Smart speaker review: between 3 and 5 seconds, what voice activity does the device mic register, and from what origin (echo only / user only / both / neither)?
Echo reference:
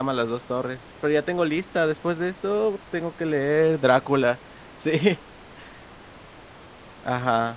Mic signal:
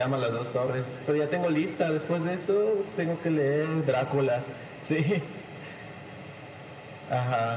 echo only